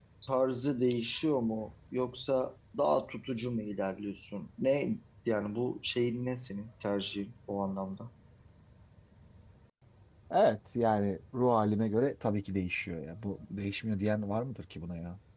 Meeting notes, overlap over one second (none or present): none